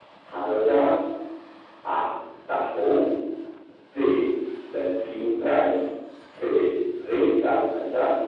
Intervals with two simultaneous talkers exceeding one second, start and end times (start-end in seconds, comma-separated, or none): none